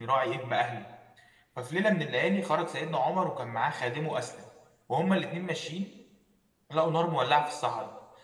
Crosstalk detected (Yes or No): No